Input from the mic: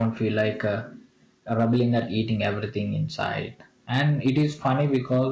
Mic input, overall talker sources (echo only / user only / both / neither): user only